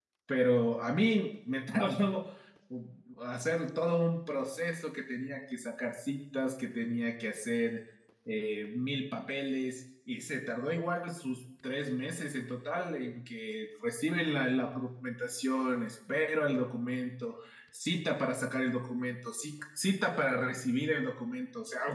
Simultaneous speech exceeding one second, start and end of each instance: none

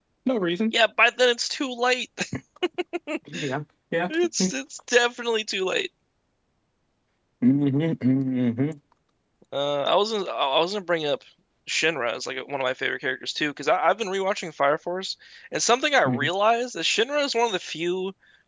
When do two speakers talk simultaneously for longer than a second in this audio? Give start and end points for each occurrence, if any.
none

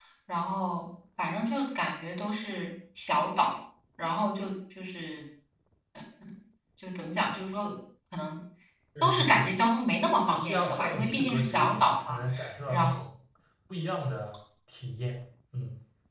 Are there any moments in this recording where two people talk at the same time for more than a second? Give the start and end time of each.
10.2-12.2

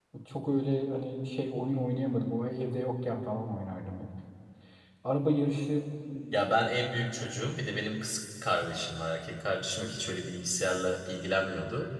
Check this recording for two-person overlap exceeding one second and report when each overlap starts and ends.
none

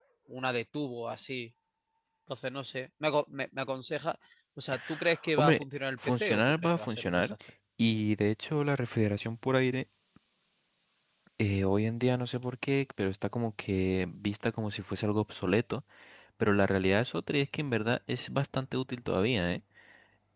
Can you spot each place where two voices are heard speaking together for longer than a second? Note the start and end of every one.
6.0-7.3

